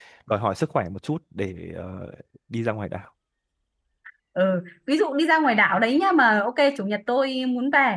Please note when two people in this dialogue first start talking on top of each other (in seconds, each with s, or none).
none